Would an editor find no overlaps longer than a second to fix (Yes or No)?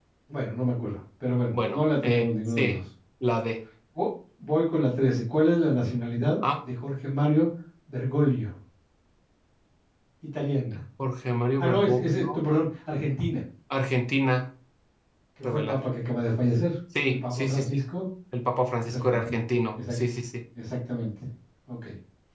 No